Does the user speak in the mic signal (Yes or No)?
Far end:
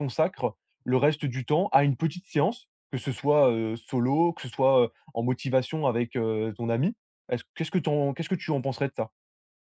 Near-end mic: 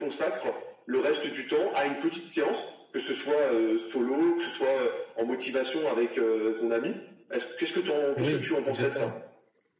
Yes